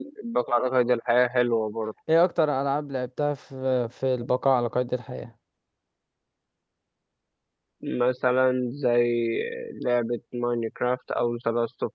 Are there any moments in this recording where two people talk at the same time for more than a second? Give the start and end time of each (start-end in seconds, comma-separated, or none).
none